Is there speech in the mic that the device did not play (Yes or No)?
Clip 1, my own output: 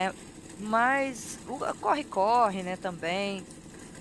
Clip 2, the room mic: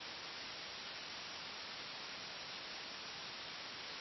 No